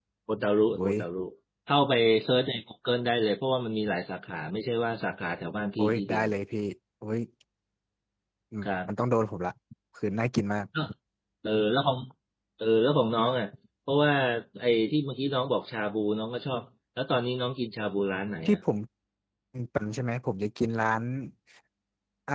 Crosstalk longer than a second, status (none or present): none